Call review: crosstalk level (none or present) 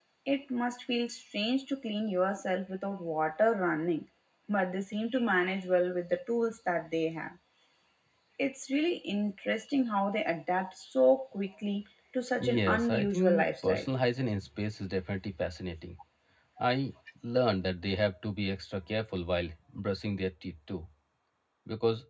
present